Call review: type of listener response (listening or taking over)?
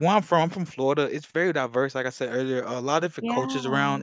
listening